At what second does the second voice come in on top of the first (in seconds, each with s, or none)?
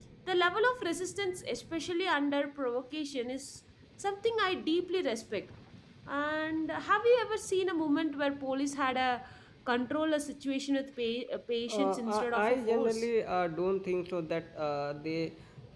11.7 s